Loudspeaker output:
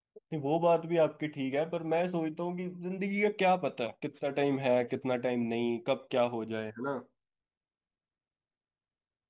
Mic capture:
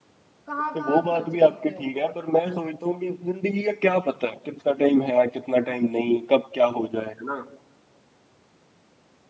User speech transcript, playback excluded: कहाँ कहाँ खर्च करते हो

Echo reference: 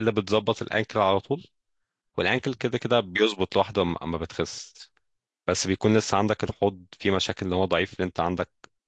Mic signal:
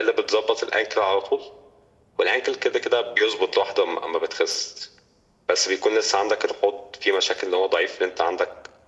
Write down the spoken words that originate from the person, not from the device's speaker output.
none

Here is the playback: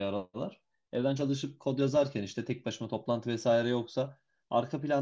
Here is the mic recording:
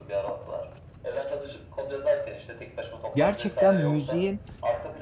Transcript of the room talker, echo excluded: Gerçekten müziğin

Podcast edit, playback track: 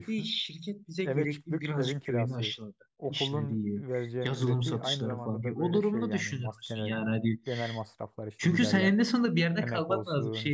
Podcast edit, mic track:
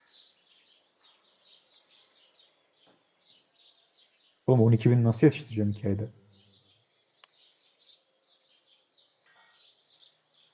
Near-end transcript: Oğlum 12 bin nasıl yetiştireceğim 2 ayda?

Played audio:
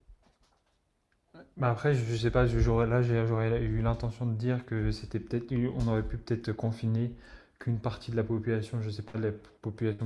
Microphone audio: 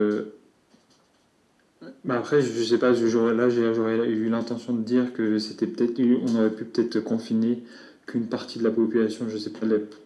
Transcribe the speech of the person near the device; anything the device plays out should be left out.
none

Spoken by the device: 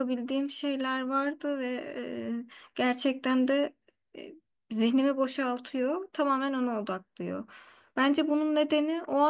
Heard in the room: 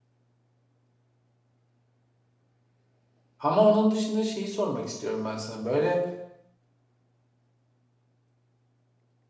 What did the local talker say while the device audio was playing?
Ama onun dışında şeyi sormak istiyorum ben sana. Böyle

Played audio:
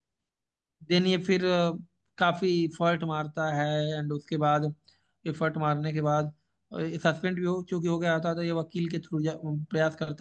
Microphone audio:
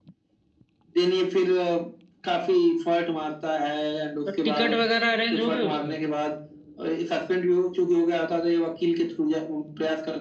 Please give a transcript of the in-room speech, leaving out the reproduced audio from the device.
तो टिकट वगैरह अरेंज हो गई उसकी

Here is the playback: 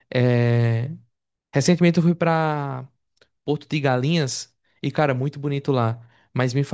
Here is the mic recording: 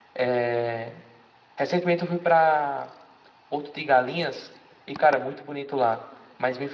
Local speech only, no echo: none

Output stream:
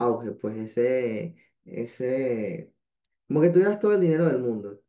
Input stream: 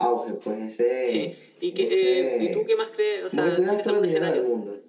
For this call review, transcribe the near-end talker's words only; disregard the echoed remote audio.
sí. ¿Y, que, eh, ¿y tú qué más crees? O sea, ¿tienes algún escenario?

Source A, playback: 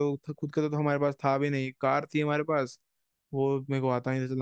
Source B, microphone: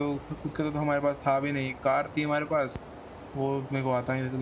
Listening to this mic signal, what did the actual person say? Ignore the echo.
none

